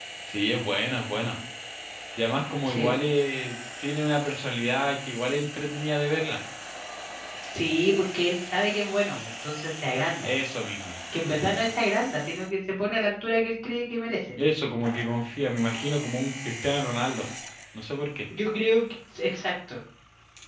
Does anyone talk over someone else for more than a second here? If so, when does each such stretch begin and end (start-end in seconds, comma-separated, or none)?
none